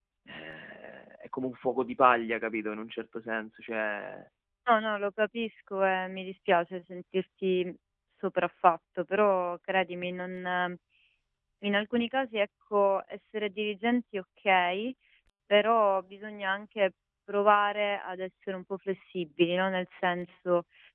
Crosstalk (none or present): none